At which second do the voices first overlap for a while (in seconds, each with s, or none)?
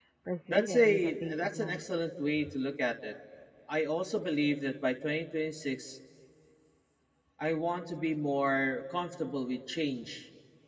0.5 s